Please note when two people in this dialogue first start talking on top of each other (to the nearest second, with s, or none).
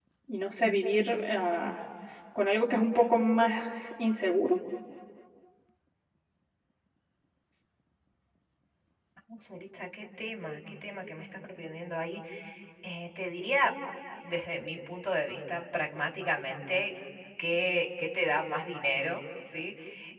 none